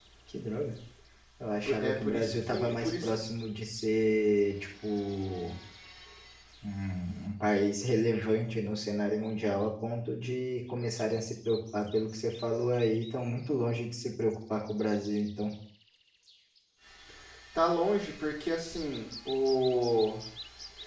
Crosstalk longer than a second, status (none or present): present